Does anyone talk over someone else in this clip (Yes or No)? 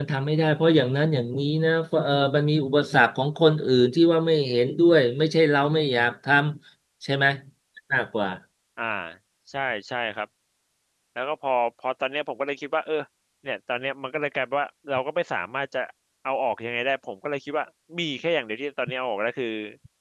No